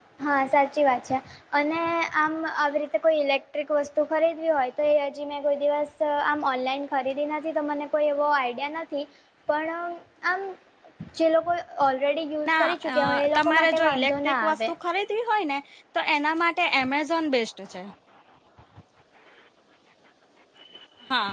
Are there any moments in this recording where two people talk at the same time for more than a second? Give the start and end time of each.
12.5-14.6

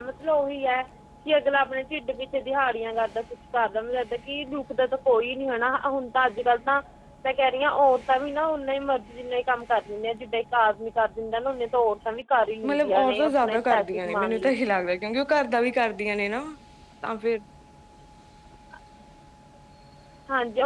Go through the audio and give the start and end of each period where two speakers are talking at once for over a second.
12.6-14.5

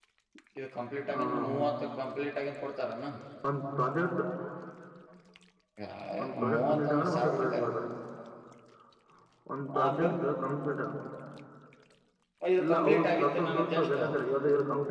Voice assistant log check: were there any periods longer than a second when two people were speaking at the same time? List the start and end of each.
6.2-7.7, 12.6-14.0

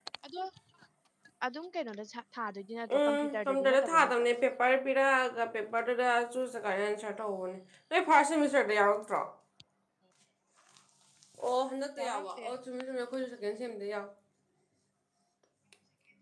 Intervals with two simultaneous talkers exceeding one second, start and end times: 2.9-4.2

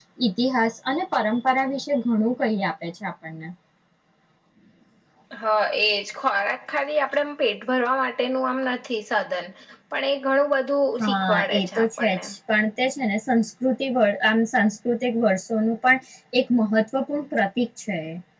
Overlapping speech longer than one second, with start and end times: 11.0-12.2

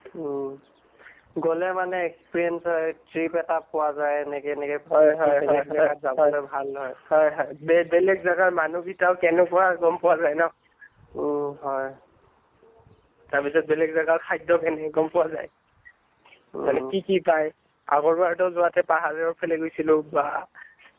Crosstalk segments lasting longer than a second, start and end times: 5.0-6.3

